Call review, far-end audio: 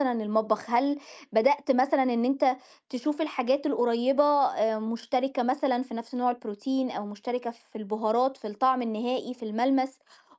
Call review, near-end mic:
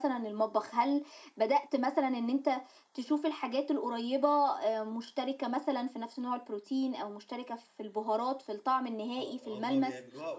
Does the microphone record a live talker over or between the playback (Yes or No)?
Yes